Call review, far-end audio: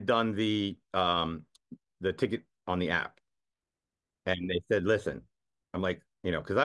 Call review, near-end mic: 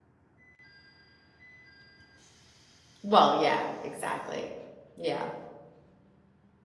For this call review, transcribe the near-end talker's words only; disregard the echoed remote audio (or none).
Well, yeah, exactly. Yeah,